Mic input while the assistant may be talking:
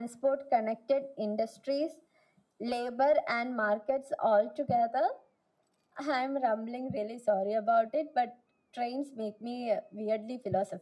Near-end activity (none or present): none